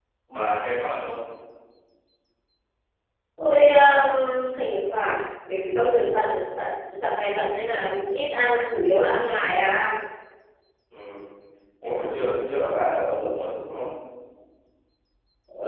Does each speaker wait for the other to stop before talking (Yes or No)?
Yes